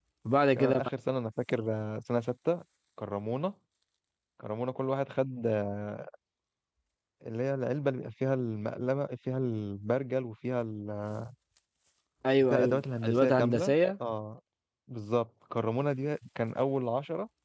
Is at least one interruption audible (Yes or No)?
Yes